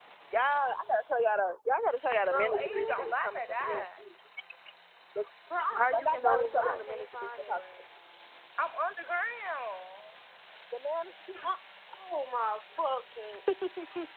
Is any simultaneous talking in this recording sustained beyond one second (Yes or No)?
Yes